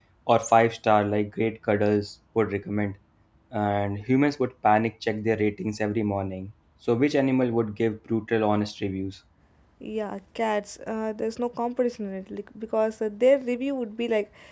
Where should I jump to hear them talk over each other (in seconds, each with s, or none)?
none